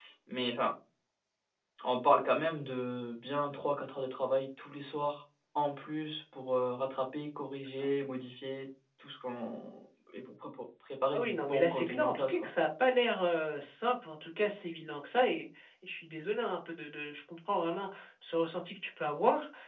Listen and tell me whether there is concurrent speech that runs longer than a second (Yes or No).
Yes